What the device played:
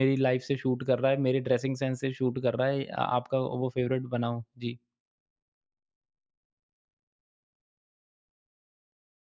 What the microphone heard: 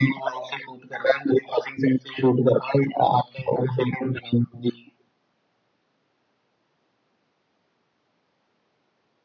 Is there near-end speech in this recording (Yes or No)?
No